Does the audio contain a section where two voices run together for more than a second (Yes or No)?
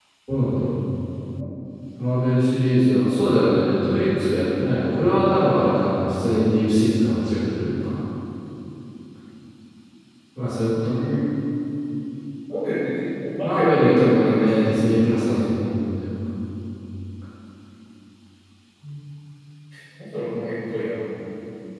Yes